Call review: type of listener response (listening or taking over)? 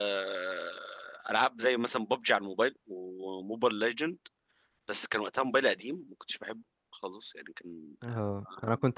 taking over